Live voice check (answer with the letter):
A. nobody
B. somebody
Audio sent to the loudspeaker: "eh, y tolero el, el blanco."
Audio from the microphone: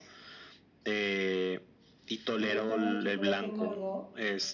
B